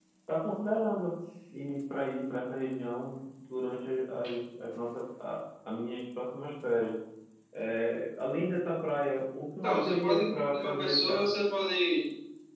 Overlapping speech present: Yes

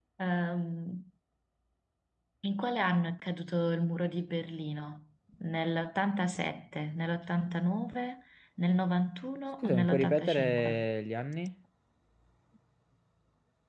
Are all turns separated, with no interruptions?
No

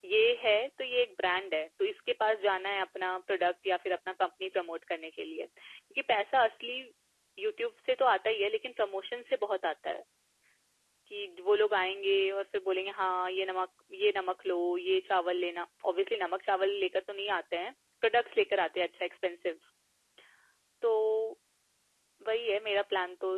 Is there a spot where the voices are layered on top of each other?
No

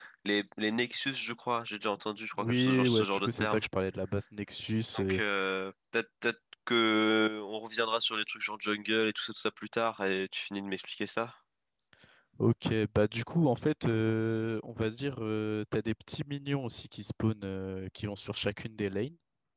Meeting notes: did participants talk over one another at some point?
Yes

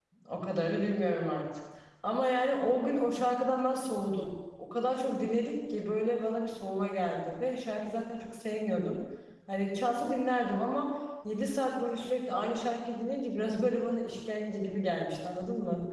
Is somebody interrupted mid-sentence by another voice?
No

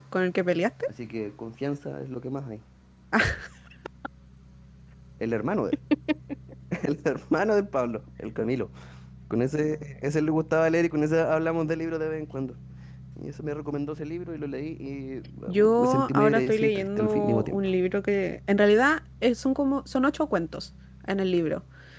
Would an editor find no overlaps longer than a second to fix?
No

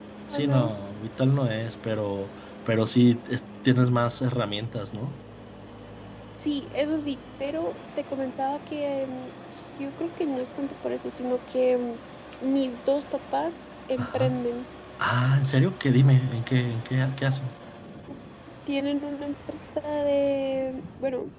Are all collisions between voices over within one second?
Yes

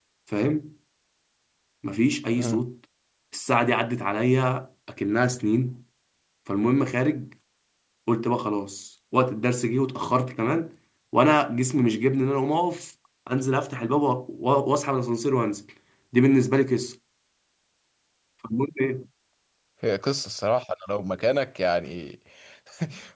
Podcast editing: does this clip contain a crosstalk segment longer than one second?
No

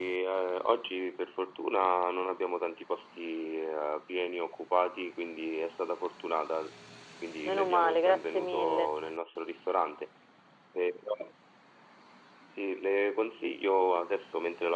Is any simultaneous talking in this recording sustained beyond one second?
Yes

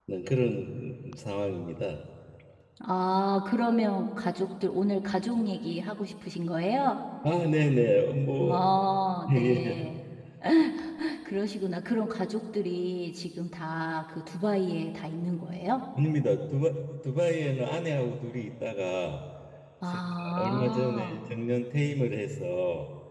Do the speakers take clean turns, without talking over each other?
No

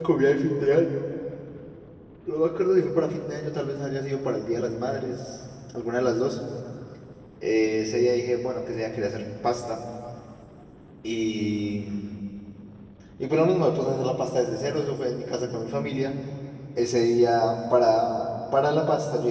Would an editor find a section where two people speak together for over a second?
No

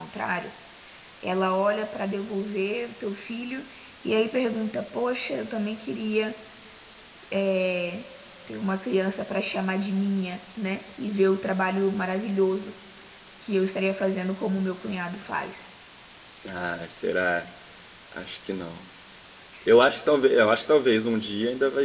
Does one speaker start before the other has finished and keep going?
No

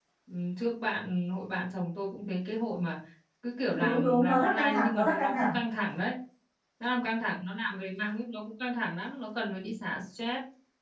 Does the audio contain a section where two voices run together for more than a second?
Yes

